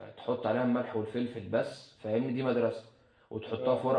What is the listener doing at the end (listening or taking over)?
listening